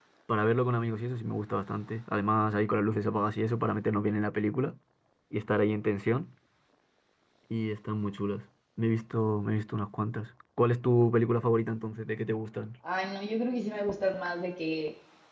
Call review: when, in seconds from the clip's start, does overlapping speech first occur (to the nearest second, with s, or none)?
none